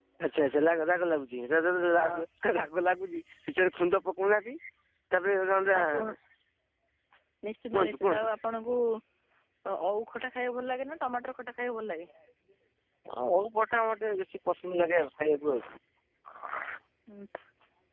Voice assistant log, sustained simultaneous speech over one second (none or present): none